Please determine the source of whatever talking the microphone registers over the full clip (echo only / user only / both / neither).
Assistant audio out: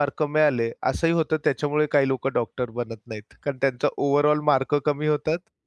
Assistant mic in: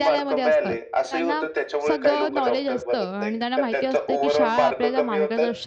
both